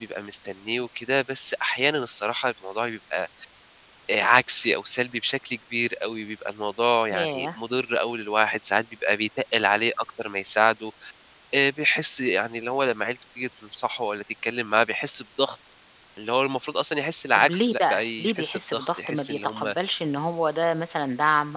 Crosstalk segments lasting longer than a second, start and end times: 17.4-19.7

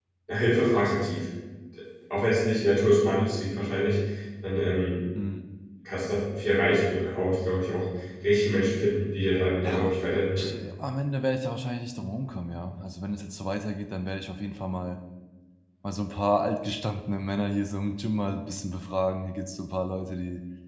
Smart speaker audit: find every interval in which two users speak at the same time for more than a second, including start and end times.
none

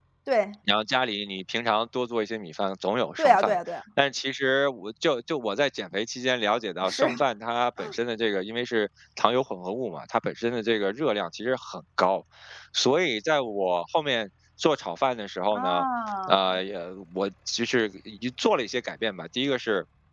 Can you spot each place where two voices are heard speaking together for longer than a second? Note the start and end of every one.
none

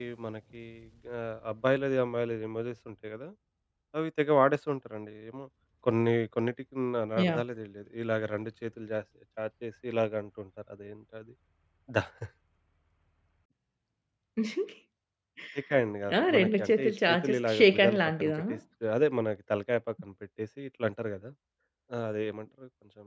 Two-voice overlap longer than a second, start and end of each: 16.2-18.4

